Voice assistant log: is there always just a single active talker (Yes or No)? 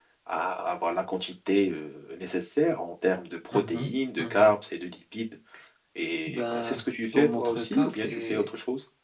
No